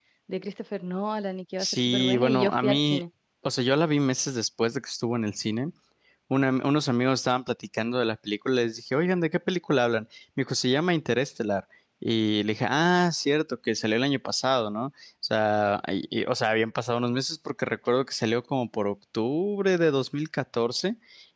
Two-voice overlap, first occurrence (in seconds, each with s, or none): 1.6 s